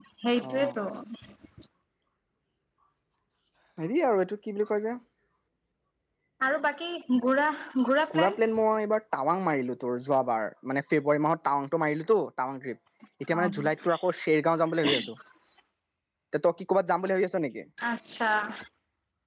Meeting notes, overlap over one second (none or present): none